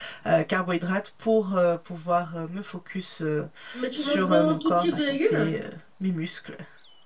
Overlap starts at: 4.0 s

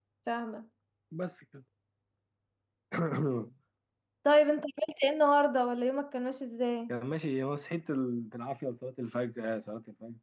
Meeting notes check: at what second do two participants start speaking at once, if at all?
none

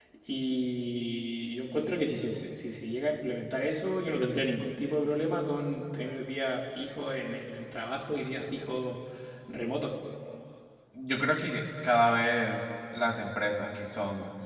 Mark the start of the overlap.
none

